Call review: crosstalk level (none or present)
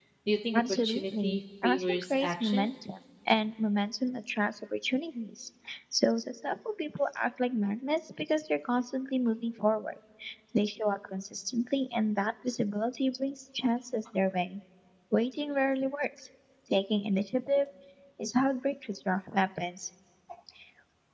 present